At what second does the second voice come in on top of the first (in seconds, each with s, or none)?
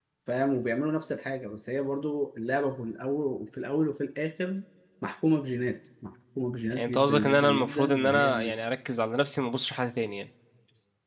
6.7 s